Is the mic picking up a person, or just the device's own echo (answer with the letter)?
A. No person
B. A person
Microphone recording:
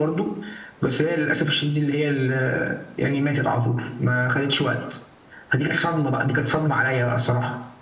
A